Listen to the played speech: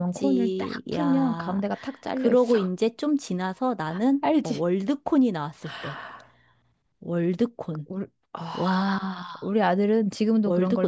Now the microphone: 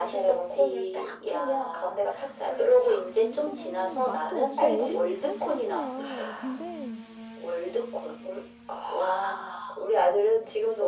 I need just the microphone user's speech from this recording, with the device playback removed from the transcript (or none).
그거 맛도 없어 얼음이 80%야 근데